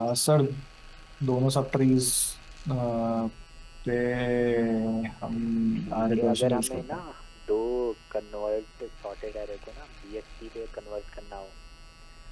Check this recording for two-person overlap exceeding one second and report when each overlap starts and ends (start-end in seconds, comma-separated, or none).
5.8-7.0